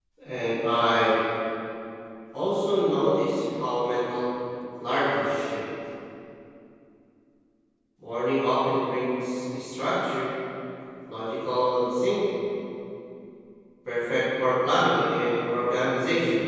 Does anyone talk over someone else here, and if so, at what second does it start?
none

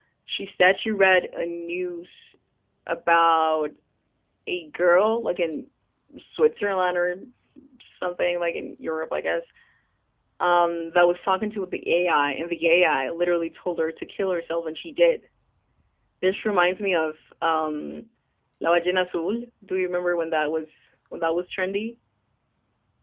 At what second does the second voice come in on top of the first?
none

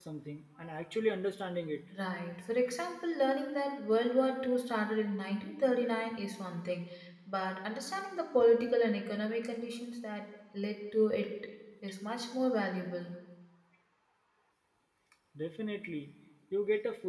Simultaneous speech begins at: none

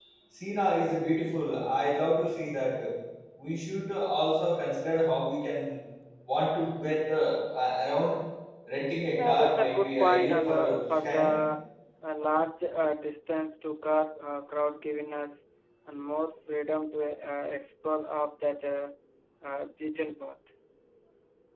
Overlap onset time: 9.2 s

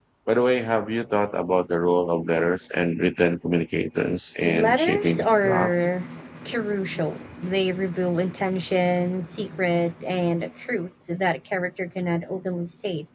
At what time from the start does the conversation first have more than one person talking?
4.4 s

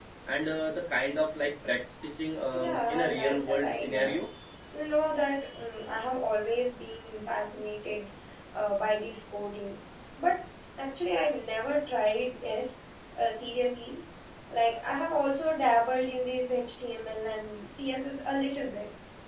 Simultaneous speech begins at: 2.5 s

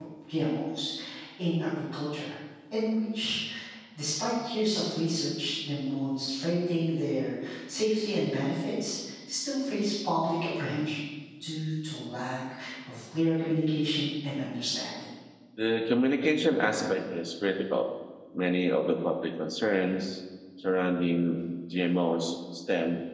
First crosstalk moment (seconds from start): none

